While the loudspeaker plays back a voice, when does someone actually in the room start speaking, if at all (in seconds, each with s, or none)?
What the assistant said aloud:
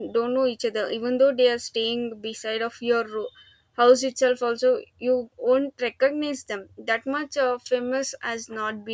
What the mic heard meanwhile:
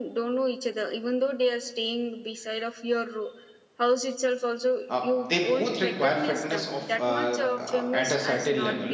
4.9 s